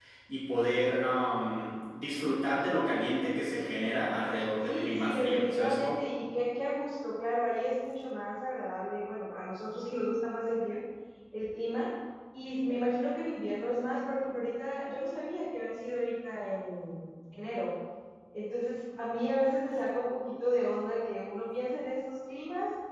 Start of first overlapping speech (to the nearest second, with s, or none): 5 s